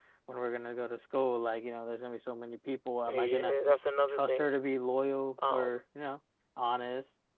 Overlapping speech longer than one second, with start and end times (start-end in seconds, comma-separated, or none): none